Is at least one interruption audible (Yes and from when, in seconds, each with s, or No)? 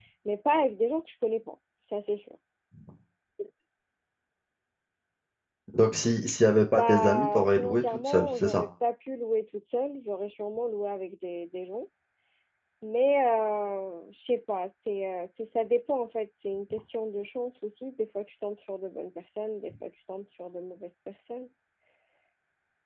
Yes, from 6.7 s